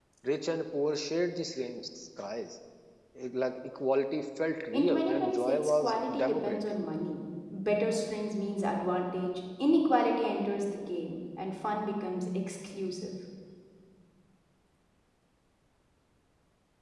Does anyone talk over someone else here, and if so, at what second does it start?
4.7 s

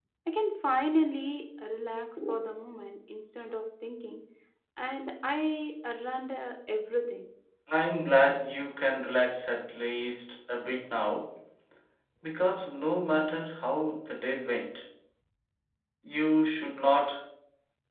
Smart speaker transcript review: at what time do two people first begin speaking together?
none

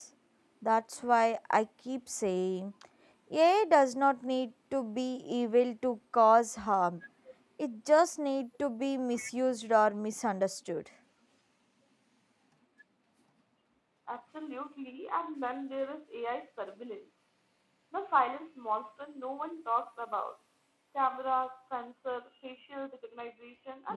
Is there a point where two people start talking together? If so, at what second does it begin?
none

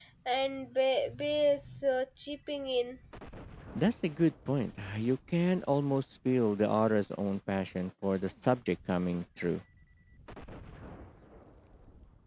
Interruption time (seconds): none

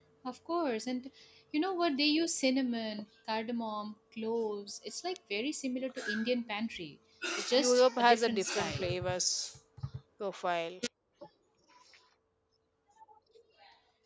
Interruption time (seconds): 7.5 s

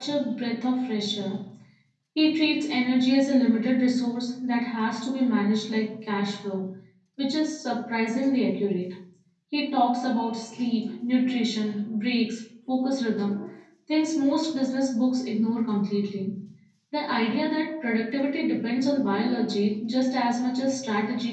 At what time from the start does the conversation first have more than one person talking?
none

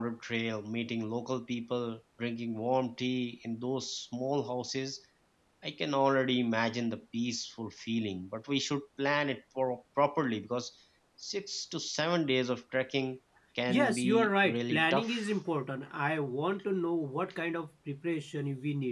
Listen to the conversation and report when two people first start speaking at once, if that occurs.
13.7 s

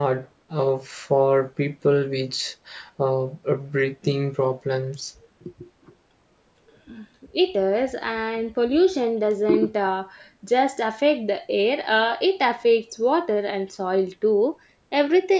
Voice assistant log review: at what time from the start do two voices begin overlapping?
none

